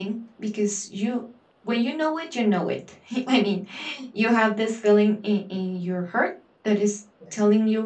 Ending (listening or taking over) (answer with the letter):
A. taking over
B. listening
B